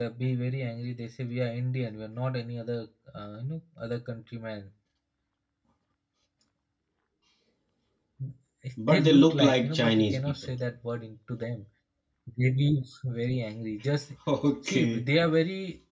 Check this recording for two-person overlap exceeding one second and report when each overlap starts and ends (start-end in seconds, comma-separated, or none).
8.9-10.3